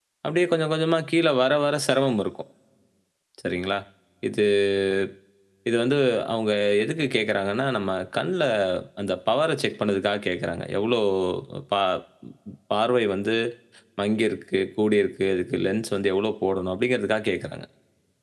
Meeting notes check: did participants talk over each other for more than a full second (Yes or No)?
No